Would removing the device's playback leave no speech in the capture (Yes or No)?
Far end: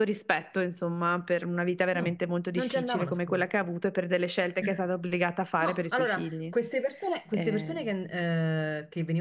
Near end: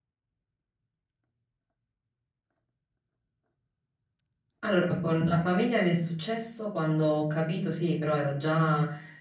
No